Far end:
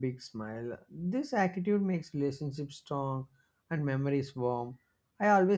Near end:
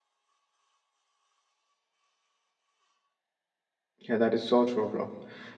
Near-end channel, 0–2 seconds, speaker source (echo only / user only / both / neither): neither